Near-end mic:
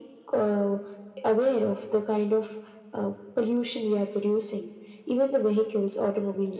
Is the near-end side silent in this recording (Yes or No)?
Yes